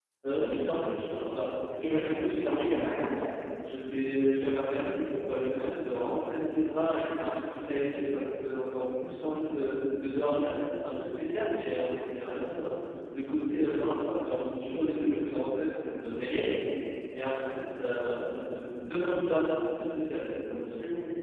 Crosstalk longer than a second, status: present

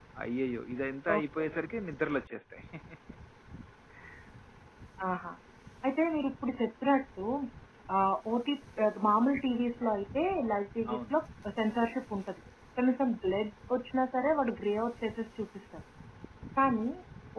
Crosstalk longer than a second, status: none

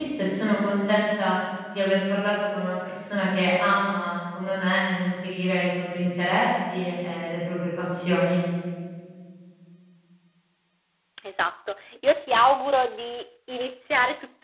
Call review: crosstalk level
none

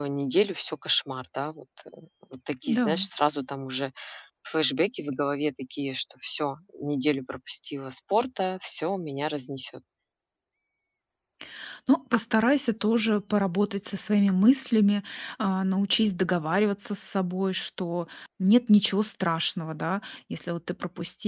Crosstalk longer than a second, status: none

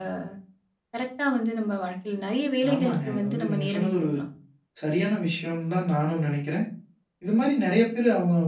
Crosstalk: present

